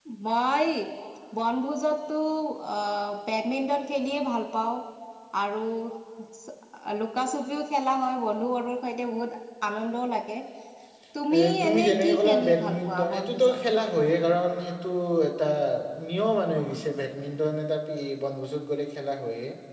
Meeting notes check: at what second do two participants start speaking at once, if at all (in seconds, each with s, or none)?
11.4 s